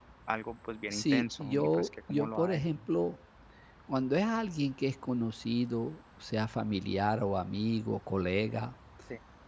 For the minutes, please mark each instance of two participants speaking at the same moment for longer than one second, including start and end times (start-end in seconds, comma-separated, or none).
0.9-2.8